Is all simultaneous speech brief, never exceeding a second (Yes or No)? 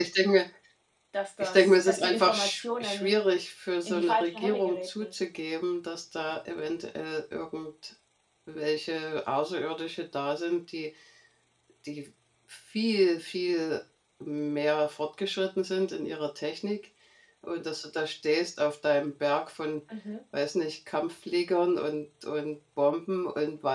No